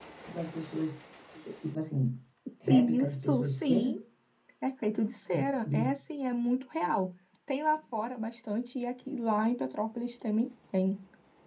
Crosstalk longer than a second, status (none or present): present